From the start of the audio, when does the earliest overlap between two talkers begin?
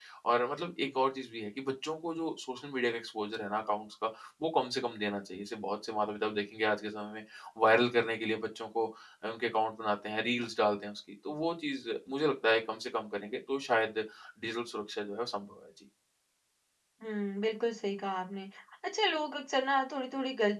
none

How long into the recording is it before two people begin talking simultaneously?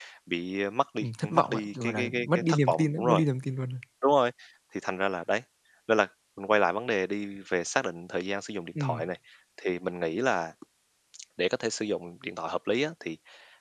1 s

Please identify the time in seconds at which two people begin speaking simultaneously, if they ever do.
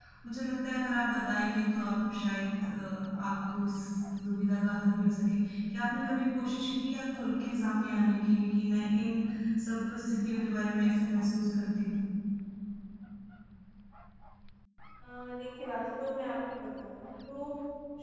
none

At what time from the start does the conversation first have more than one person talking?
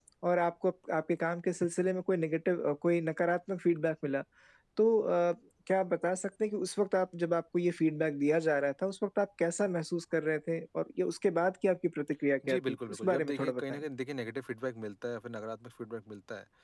12 s

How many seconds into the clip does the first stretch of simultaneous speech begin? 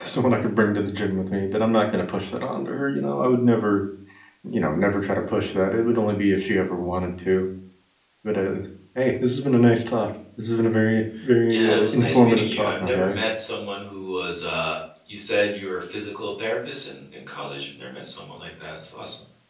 11 s

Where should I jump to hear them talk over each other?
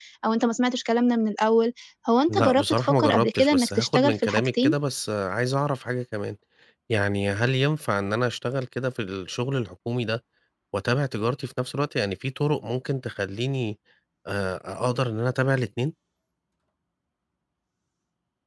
2 s

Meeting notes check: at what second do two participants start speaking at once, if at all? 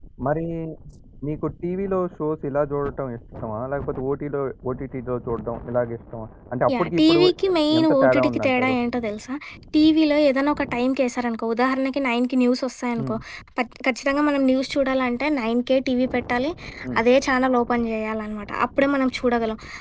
7 s

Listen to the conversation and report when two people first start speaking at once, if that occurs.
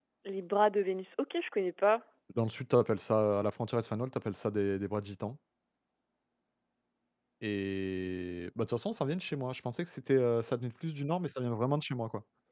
none

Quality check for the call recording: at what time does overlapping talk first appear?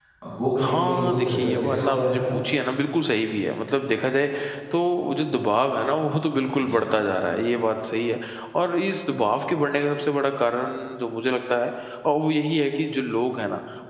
1 s

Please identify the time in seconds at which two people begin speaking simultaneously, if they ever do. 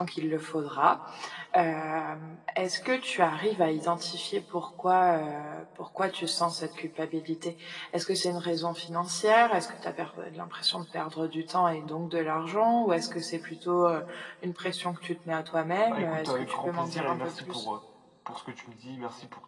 16 s

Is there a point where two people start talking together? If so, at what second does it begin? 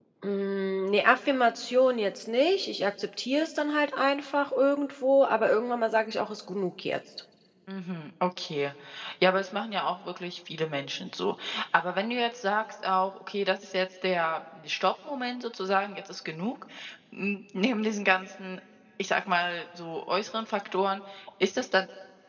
none

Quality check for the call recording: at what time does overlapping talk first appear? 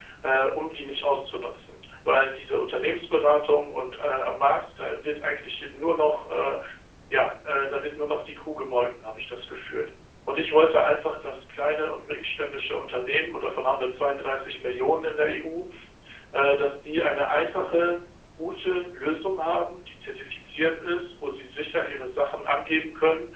none

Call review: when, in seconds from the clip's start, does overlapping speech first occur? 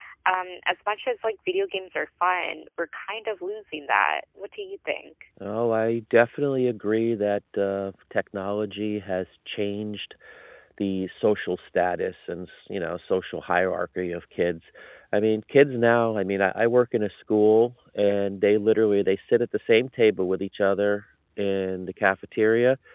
none

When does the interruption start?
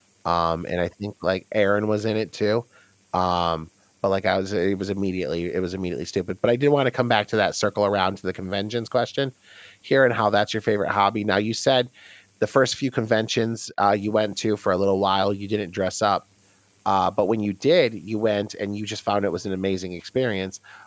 none

